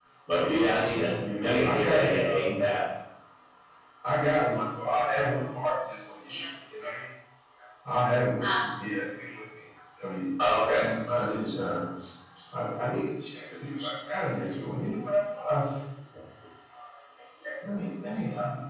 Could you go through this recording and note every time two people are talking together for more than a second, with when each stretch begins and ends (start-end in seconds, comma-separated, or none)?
1.4-2.6